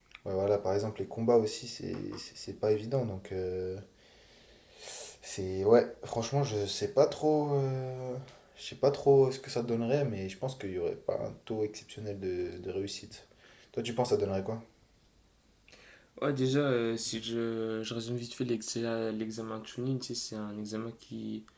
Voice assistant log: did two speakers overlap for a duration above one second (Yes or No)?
No